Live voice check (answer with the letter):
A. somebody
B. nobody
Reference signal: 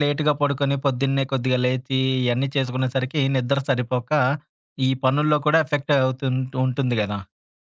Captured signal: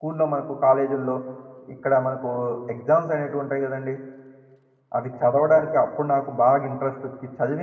A